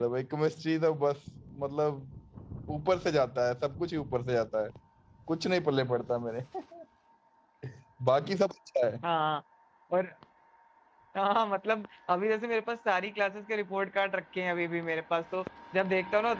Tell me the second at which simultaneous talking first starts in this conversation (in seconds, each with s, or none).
none